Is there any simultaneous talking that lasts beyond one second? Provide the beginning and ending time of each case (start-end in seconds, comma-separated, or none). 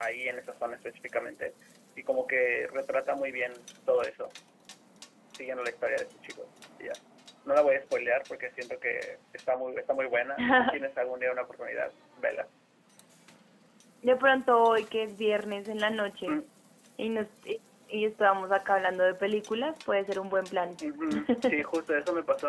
none